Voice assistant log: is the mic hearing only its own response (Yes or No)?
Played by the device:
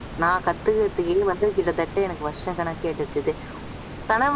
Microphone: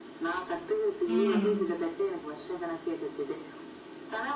No